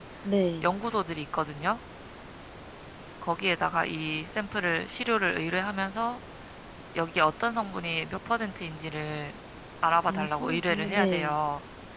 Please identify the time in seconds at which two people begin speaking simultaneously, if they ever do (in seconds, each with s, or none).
10.1 s